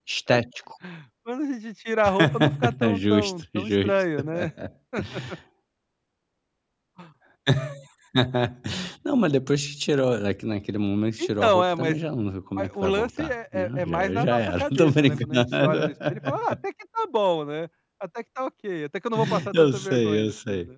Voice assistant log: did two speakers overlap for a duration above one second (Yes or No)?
Yes